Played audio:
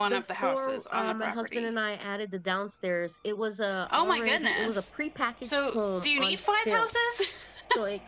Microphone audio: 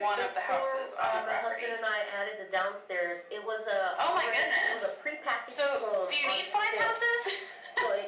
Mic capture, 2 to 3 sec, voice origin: echo only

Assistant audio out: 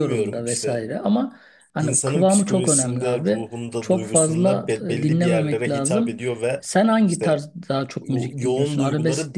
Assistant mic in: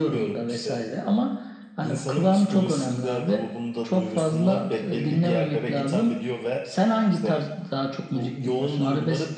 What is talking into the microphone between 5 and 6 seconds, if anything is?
echo only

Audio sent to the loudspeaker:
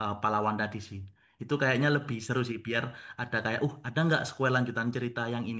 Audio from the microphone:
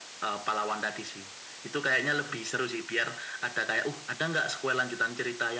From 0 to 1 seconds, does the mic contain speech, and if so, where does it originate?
echo only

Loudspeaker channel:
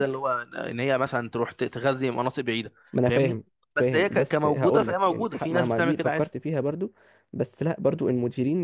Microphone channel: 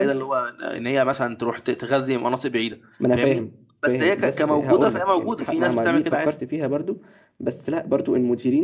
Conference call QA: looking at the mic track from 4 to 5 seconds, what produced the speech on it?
both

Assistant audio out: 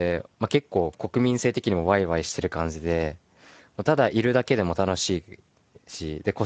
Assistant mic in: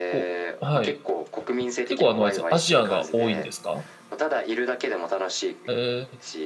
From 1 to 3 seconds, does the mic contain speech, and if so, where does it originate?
both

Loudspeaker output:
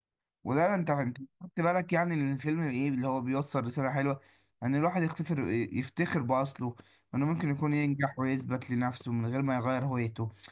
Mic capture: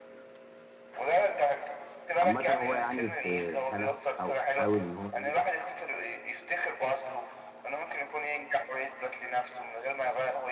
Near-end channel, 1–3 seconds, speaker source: both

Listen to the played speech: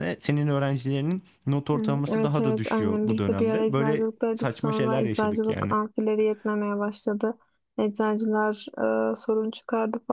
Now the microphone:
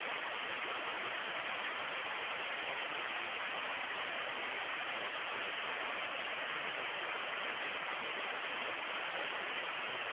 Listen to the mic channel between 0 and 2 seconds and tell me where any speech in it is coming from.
neither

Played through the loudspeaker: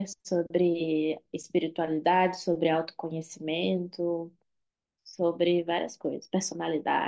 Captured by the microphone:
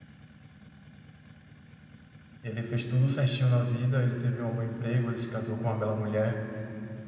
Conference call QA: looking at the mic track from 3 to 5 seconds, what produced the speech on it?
user only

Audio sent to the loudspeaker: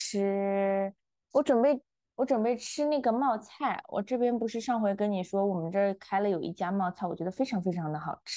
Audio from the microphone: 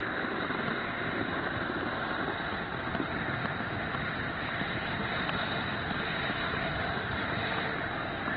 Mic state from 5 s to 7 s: neither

